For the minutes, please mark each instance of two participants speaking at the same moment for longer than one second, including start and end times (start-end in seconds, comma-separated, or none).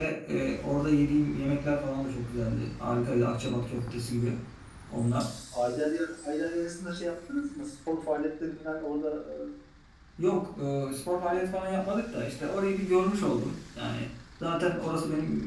none